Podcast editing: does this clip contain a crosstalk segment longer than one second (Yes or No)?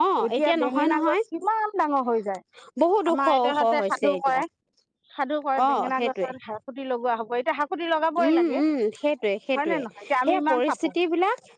Yes